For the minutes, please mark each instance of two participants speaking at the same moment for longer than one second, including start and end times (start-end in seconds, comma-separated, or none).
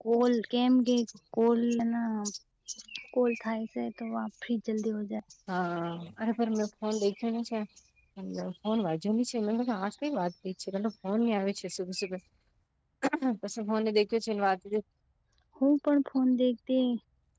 none